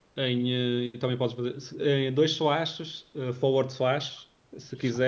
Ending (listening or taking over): listening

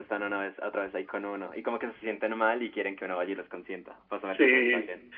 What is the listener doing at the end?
taking over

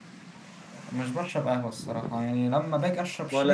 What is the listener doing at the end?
listening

